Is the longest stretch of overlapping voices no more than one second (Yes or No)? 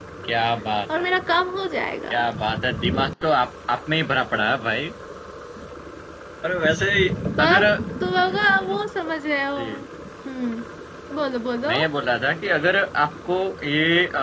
Yes